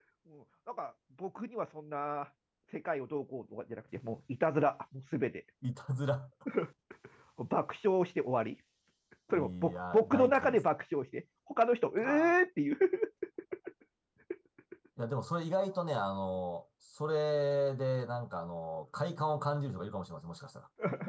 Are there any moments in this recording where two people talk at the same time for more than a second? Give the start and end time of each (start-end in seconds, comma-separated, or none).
9.3-10.6